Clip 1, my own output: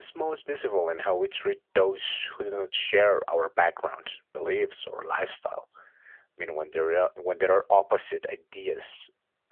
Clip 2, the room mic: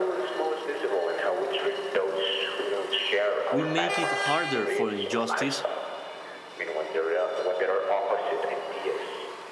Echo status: present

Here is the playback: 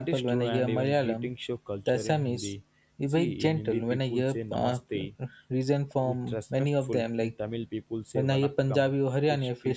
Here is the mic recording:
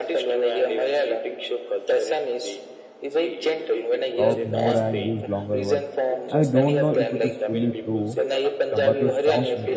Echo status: present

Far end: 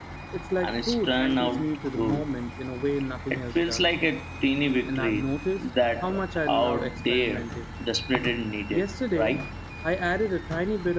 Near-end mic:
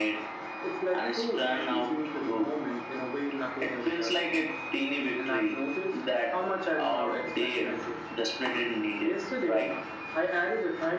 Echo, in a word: present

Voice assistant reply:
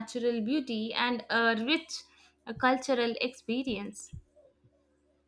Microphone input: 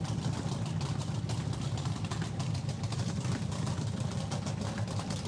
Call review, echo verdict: none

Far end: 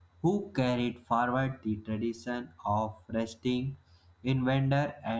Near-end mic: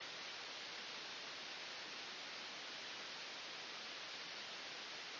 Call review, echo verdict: none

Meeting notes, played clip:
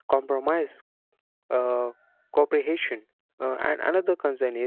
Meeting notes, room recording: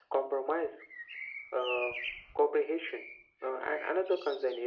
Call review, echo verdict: present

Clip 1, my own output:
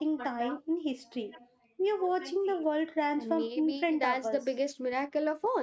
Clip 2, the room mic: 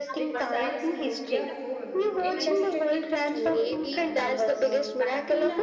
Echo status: present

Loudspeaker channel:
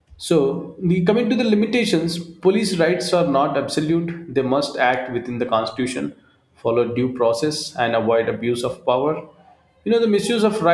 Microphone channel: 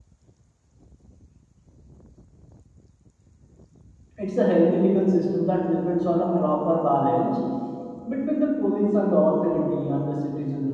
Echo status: none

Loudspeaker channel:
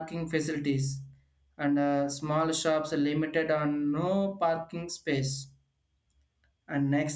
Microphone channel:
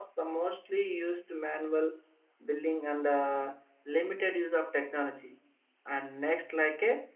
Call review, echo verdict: none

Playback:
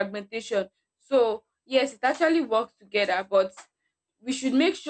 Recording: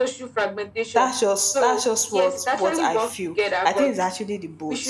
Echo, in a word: present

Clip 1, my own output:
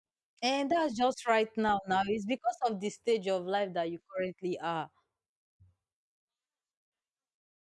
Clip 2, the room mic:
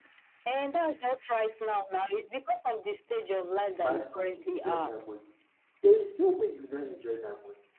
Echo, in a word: present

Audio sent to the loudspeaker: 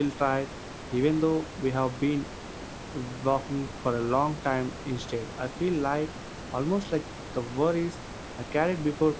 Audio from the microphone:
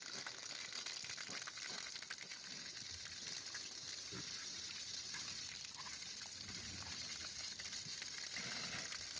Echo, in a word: none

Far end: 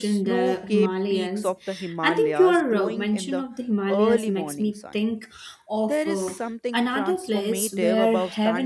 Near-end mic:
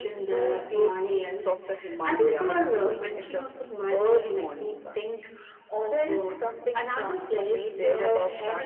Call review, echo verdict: present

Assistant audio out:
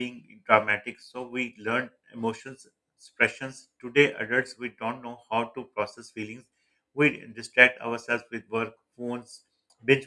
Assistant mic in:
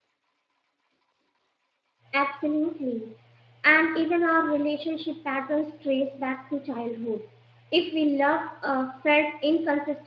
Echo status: none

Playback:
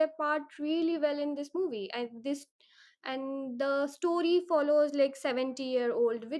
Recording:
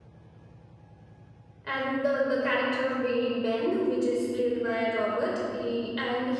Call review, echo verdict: none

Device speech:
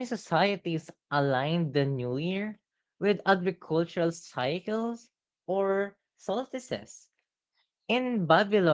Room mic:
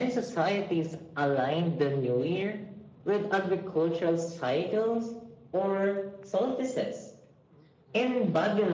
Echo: present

